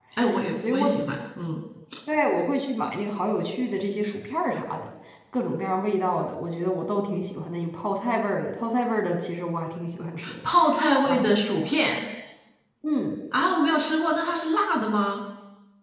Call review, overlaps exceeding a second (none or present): none